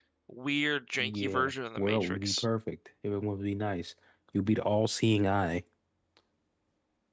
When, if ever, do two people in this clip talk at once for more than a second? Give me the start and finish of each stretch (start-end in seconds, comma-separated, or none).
1.0-2.4